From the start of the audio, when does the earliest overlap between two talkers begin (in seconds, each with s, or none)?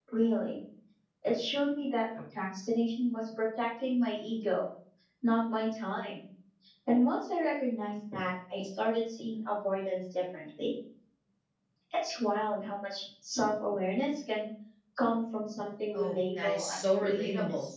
15.9 s